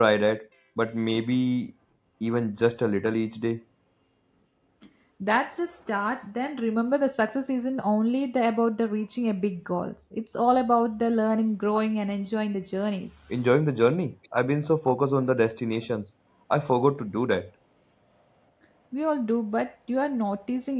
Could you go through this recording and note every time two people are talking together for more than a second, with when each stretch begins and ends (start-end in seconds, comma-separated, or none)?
none